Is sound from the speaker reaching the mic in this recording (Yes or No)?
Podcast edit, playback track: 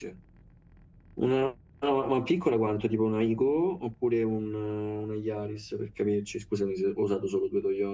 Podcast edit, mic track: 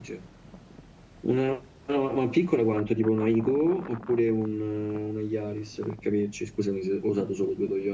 Yes